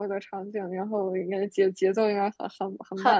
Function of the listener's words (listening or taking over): taking over